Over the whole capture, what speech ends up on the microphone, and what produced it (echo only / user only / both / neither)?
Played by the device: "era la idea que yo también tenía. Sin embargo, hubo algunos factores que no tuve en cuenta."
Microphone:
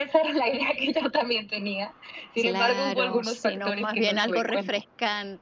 both